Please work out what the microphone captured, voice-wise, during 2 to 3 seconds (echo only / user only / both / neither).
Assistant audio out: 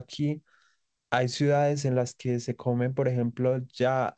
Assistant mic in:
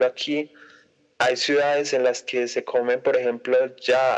echo only